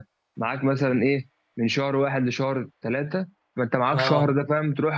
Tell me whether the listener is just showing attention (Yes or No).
Yes